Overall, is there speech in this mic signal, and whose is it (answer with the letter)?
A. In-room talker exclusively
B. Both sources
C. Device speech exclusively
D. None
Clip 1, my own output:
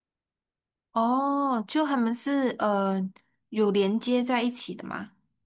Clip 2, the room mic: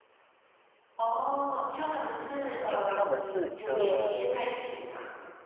B